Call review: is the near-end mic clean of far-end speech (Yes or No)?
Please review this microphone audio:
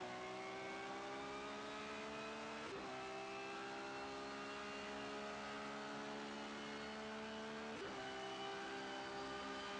Yes